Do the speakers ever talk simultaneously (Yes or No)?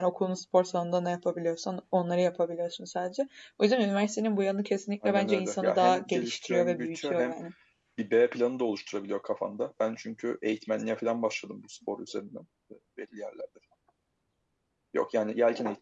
Yes